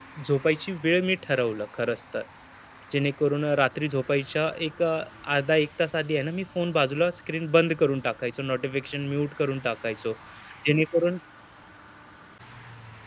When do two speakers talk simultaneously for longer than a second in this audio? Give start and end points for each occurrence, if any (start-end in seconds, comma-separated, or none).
none